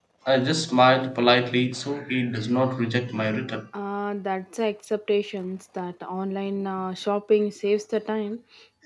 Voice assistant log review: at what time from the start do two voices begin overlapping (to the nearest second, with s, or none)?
none